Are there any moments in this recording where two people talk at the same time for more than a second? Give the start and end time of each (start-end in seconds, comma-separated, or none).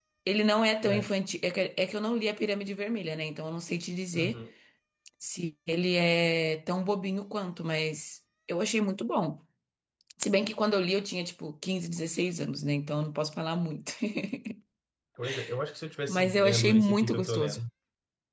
16.1-17.6